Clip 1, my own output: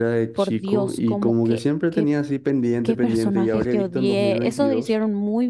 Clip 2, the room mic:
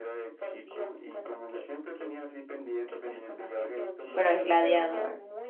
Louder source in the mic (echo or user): user